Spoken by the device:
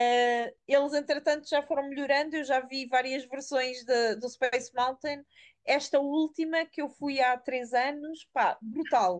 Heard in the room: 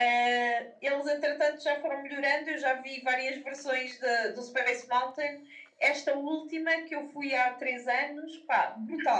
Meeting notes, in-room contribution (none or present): none